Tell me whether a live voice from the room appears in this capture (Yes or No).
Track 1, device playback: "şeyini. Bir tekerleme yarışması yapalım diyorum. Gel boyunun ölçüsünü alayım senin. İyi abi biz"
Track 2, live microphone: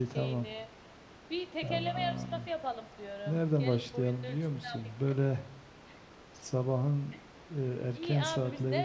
Yes